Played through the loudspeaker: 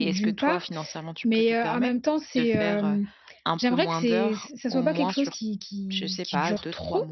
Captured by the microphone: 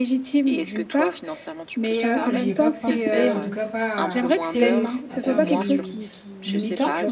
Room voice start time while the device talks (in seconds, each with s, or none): 1.9 s